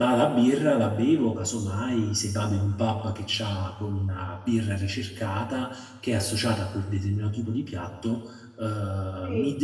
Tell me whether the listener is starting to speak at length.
No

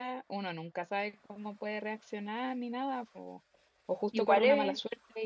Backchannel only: Yes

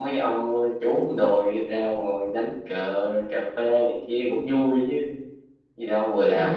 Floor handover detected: Yes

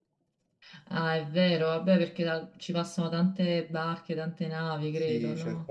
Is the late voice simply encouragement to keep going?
No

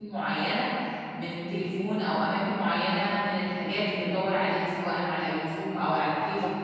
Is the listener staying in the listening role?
No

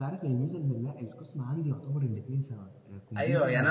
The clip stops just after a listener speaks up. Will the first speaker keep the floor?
No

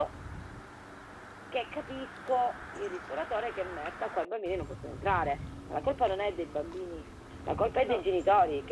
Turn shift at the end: No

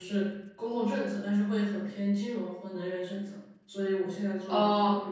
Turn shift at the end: No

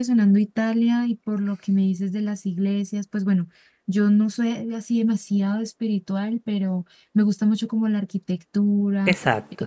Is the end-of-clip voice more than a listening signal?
No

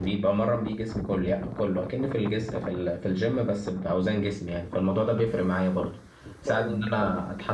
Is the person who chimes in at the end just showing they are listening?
Yes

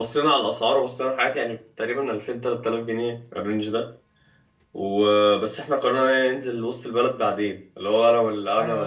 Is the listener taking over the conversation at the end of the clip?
Yes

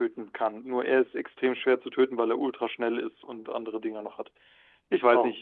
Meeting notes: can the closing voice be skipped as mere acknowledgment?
Yes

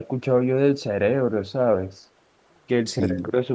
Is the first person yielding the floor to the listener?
No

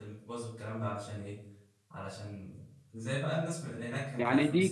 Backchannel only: No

